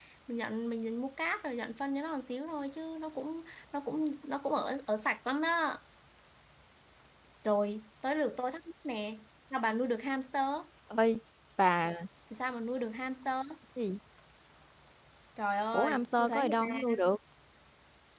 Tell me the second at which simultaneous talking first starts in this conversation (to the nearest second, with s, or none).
16 s